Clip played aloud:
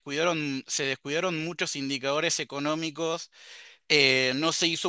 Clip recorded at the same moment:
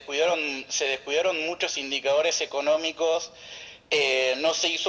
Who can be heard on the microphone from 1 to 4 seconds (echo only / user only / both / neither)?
echo only